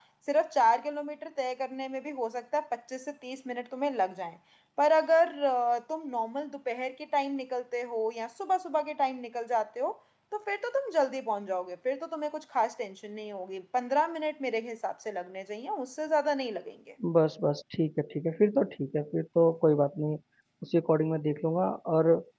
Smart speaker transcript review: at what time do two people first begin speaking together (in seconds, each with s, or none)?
none